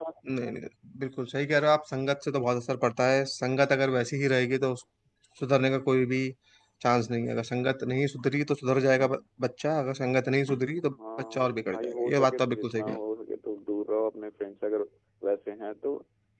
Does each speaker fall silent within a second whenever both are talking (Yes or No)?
No